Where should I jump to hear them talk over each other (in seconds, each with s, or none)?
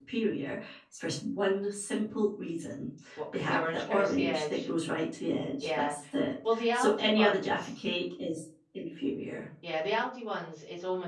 3.3 s